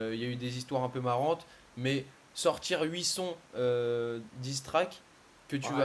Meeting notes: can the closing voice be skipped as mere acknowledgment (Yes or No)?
No